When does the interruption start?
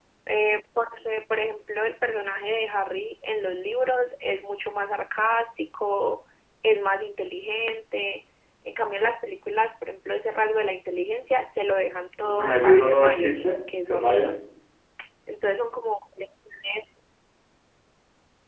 12.2 s

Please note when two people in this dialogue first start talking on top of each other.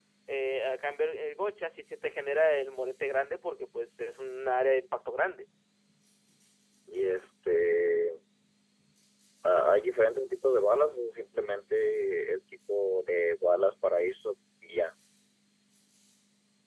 none

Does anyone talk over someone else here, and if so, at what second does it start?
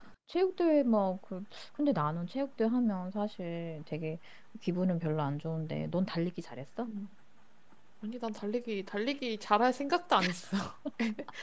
none

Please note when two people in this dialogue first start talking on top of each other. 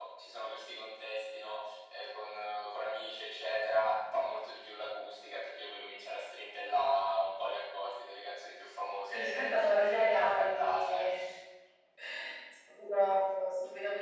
9.1 s

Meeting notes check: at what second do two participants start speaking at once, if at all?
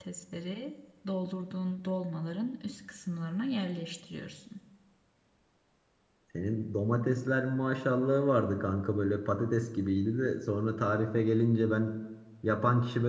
none

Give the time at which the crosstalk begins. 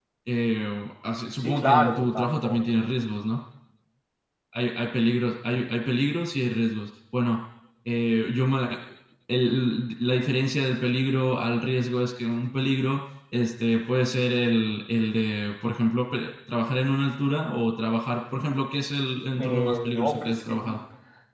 1.4 s

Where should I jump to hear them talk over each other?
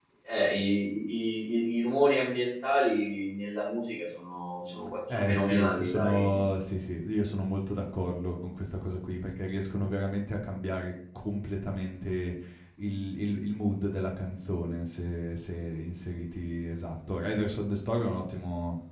5.1 s

